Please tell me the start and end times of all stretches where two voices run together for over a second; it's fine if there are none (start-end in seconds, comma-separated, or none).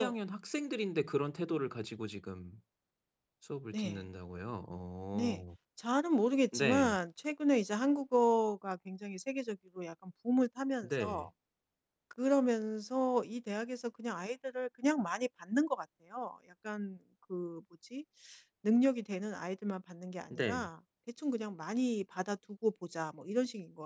none